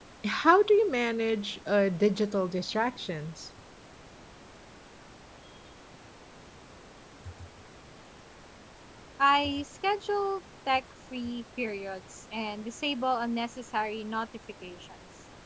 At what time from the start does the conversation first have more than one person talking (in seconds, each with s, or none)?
none